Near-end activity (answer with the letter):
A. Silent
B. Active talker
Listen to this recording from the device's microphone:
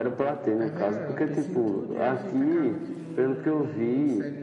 B